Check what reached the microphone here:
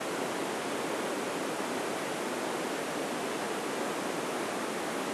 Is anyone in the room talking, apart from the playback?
No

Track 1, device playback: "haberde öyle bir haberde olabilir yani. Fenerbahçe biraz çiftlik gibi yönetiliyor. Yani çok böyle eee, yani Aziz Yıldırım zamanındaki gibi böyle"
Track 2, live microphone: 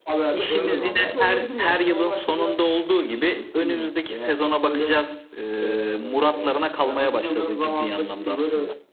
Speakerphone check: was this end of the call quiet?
No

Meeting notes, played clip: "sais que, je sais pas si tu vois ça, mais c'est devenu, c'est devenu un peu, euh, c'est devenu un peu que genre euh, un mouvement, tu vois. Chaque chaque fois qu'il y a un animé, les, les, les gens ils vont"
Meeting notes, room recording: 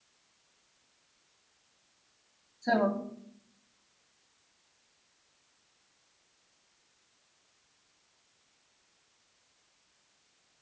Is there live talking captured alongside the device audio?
Yes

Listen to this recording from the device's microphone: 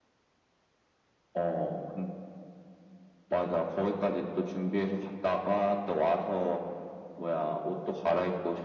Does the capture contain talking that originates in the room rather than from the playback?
No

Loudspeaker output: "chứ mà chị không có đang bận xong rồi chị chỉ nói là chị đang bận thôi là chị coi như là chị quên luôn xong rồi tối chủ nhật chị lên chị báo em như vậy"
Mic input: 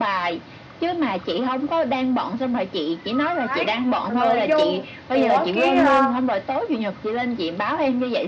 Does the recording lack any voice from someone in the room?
No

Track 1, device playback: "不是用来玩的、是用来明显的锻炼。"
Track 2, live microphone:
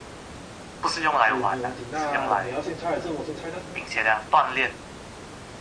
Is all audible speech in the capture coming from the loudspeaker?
No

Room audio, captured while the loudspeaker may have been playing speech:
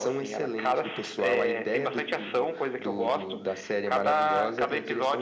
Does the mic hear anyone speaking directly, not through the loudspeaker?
No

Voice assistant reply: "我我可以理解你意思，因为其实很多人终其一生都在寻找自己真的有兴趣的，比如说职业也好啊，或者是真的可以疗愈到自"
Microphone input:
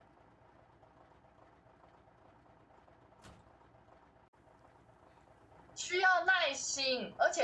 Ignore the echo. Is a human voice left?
Yes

